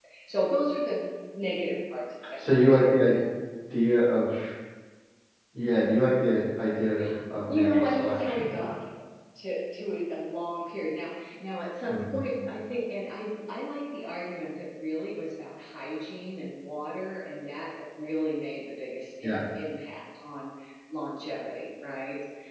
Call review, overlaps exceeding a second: present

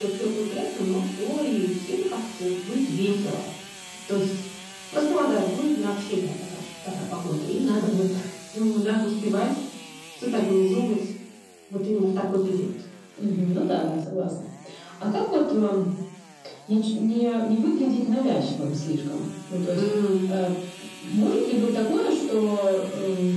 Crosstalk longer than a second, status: none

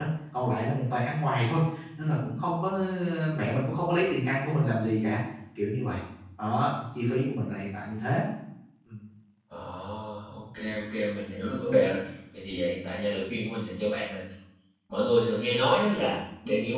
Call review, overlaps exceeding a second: none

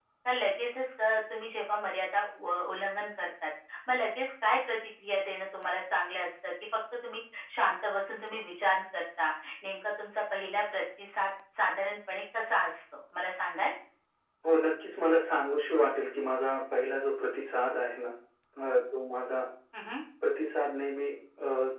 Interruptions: none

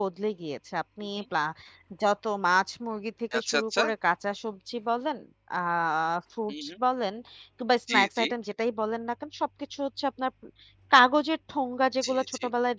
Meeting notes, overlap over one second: none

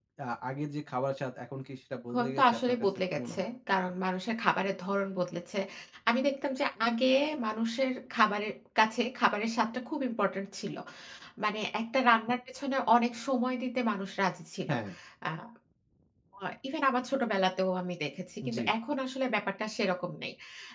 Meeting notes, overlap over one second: present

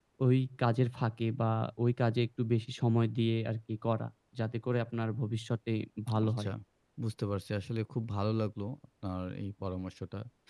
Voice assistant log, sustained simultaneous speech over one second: none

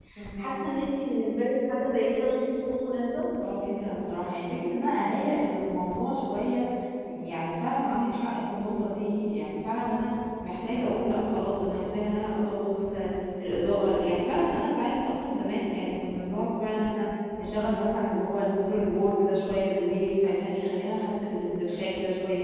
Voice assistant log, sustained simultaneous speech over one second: none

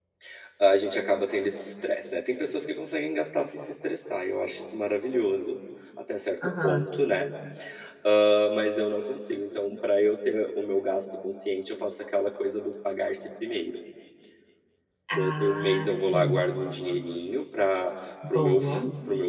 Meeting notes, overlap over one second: present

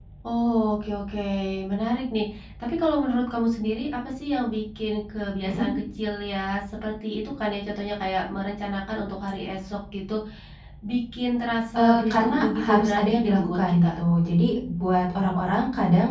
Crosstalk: present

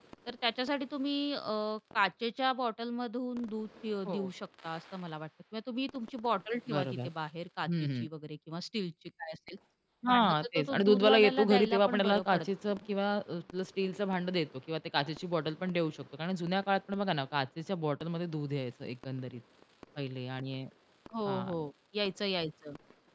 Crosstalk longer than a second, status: present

